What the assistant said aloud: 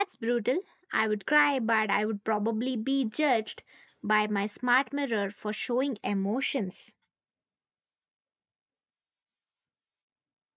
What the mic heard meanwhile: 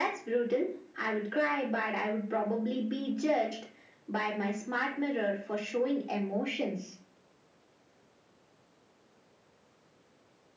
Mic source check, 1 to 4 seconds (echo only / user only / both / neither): echo only